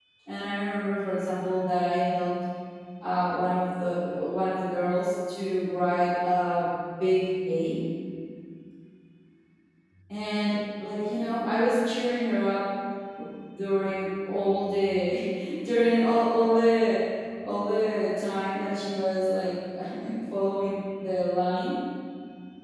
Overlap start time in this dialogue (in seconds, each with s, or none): none